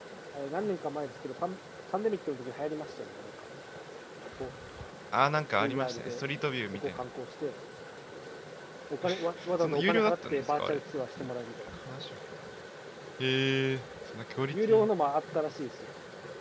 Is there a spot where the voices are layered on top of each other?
Yes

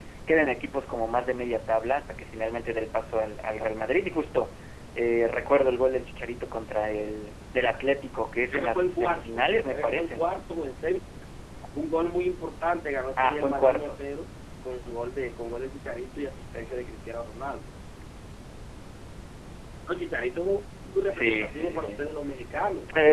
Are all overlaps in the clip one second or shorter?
No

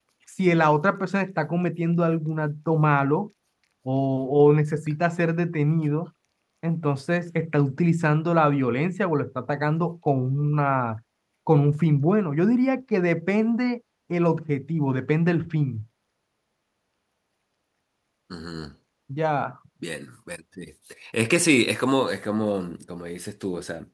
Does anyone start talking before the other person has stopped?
No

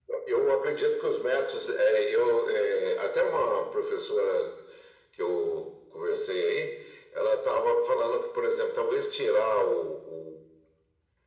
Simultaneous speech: No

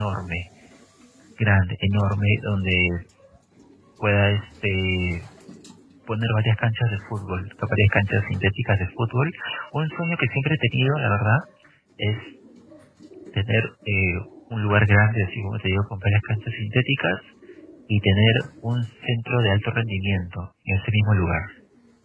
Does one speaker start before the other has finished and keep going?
No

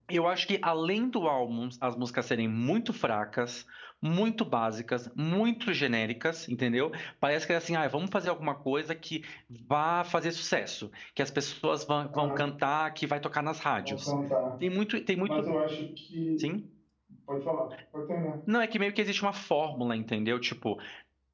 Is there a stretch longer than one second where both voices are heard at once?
No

